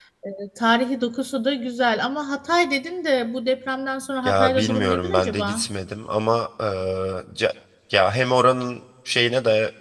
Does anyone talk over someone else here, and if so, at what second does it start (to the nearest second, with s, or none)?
4 s